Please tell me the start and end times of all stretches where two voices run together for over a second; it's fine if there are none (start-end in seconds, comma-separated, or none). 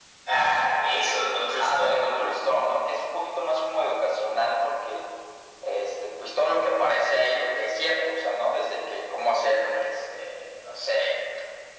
none